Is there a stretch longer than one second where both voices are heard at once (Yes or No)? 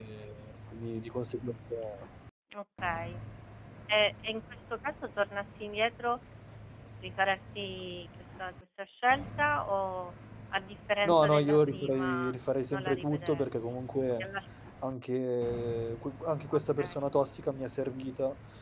Yes